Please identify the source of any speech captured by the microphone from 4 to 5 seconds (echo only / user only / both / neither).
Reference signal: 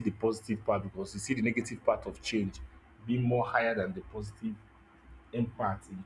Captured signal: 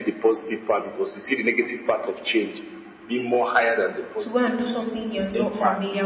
both